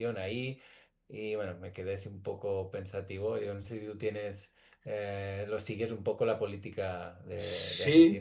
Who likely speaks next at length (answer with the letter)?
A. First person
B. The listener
B